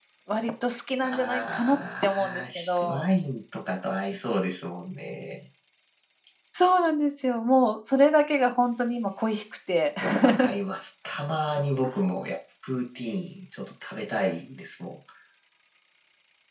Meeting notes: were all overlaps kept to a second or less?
No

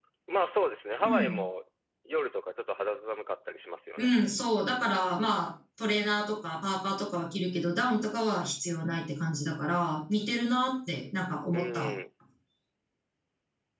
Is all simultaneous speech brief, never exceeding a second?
Yes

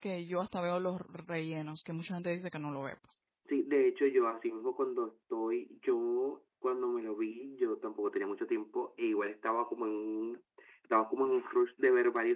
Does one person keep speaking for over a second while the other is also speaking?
No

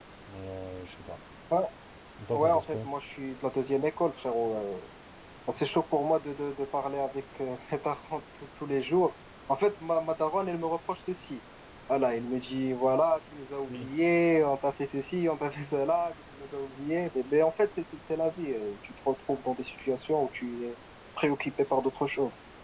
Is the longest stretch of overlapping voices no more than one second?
Yes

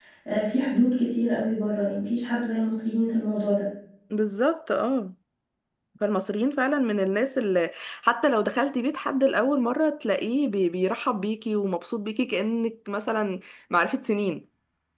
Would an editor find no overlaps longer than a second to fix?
Yes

